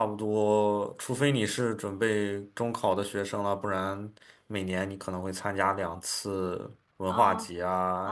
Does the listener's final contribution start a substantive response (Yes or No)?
Yes